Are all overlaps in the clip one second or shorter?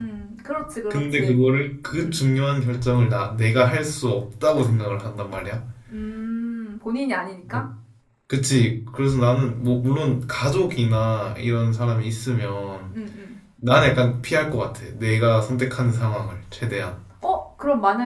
Yes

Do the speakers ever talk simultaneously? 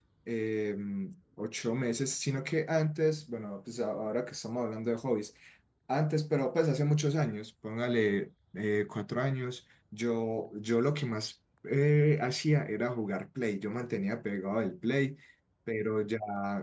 No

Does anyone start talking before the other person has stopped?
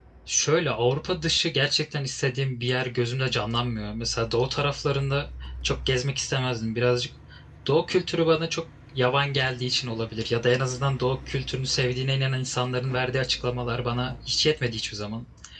No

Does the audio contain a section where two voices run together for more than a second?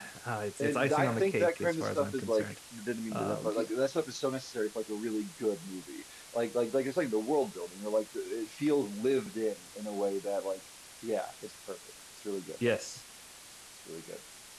Yes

